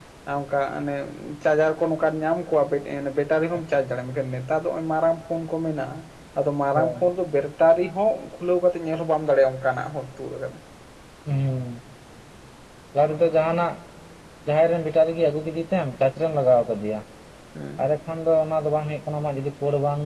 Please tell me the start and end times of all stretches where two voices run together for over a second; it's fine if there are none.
none

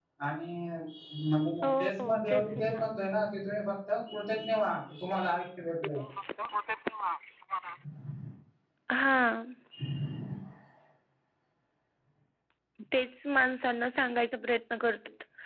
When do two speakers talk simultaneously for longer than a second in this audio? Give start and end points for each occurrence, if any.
1.6-2.9

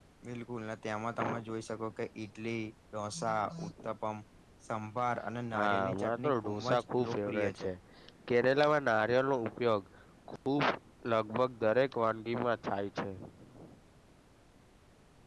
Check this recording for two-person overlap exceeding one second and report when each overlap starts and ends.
5.5-7.7

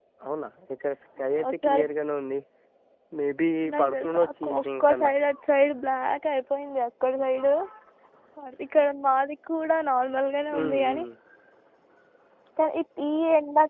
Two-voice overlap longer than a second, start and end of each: 3.7-5.0

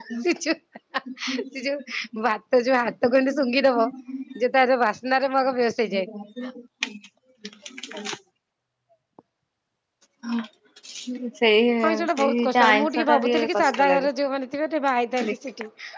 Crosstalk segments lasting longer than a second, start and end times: 11.9-14.1

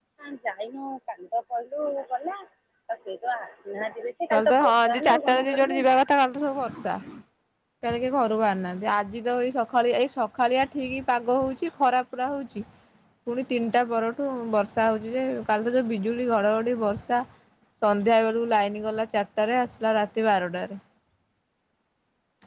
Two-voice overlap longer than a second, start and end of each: 4.3-5.8

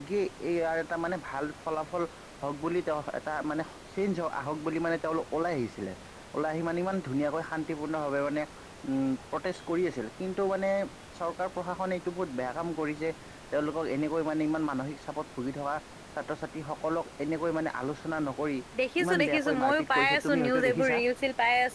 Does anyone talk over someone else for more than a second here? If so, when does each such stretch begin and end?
19.0-21.0

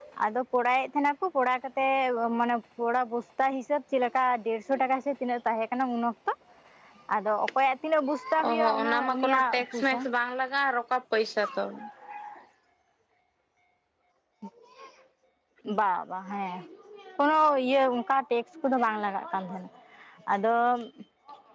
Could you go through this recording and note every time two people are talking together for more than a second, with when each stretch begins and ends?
8.5-10.0

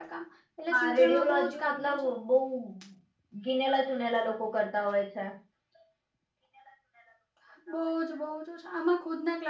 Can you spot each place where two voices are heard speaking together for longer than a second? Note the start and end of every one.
0.7-2.1

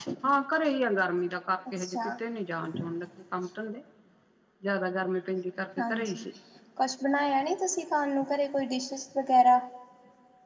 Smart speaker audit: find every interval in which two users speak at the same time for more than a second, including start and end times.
none

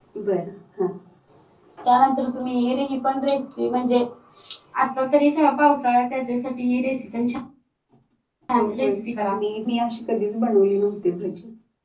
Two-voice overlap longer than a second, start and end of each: none

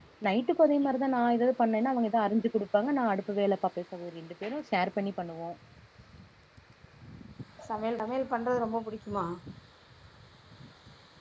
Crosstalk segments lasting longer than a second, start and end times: none

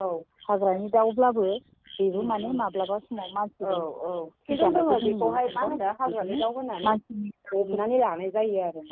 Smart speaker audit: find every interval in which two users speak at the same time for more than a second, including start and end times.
4.5-5.7

